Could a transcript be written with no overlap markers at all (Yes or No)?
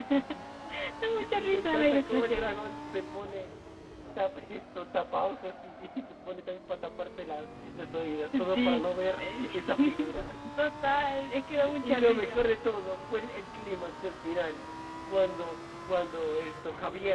No